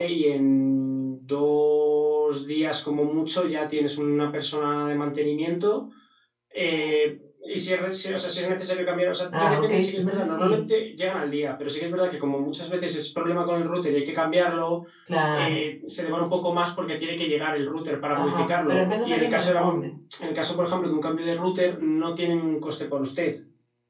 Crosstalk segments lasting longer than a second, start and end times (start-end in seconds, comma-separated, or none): 9.3-10.6, 18.1-19.9